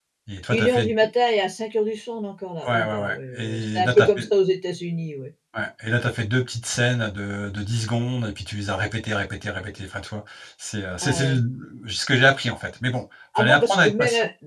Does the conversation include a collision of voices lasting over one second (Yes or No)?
Yes